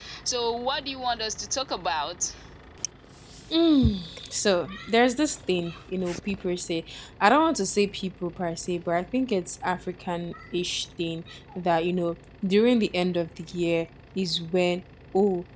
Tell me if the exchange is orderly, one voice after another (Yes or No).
Yes